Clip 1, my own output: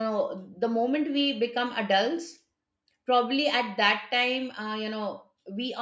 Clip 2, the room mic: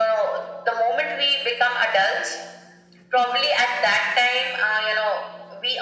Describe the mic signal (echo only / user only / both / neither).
echo only